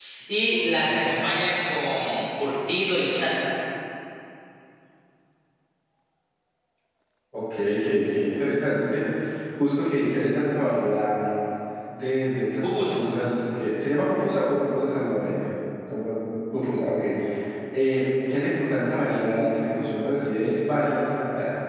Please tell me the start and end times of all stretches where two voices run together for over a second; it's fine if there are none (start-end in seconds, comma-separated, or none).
none